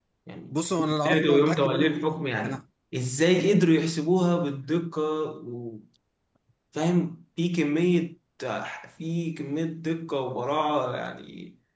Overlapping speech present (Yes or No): Yes